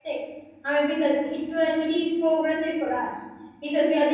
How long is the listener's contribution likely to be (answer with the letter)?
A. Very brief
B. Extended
A